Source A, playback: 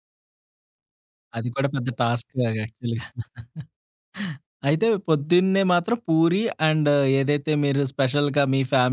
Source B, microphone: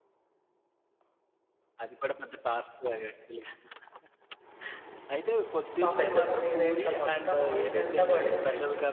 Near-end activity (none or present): present